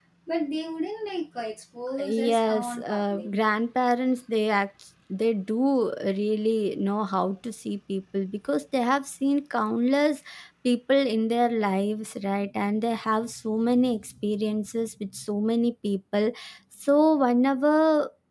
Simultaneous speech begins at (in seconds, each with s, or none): 2.0 s